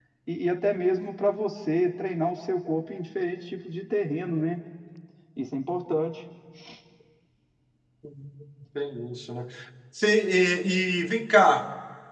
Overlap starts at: none

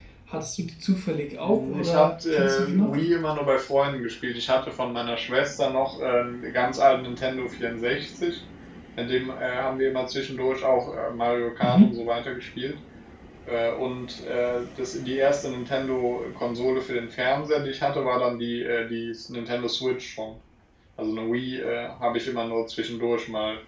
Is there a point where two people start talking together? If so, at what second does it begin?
1.4 s

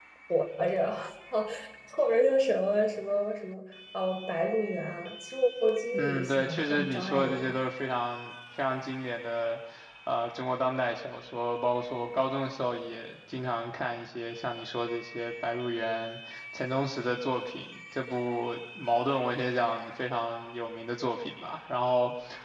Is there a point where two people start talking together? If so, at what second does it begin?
5.9 s

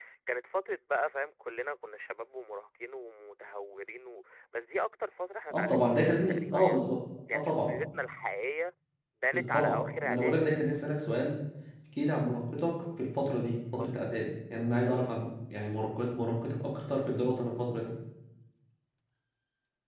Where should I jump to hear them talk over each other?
5.5 s

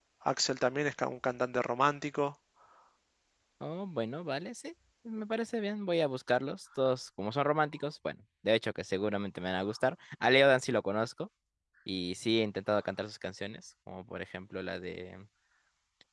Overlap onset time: none

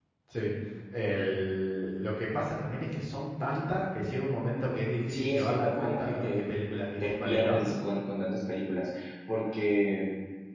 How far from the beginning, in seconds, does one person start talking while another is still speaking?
5.1 s

